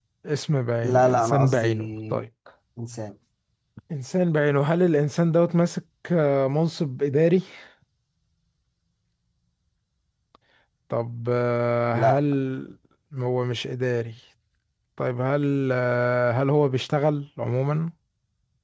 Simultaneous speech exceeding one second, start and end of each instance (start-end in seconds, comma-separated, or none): 0.8-2.2